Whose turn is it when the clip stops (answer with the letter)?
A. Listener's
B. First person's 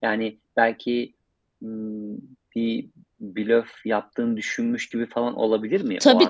A